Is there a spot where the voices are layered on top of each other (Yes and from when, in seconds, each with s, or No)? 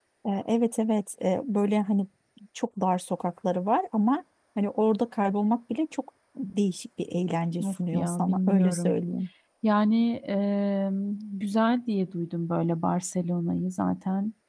Yes, from 7.5 s